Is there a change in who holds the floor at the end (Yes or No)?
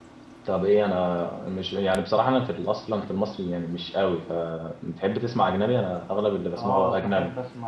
Yes